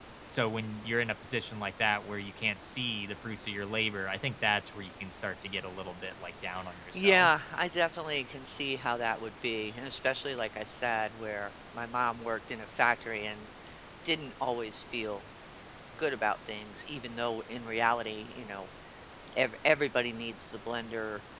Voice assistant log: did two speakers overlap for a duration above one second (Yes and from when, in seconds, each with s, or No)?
No